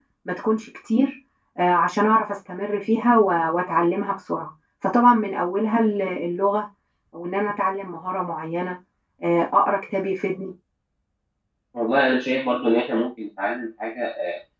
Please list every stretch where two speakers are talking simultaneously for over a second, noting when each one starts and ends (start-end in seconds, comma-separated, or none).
none